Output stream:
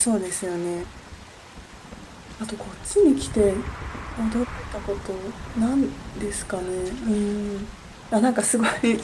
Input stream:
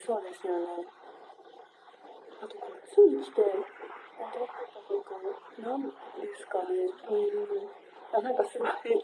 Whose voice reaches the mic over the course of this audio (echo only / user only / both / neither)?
echo only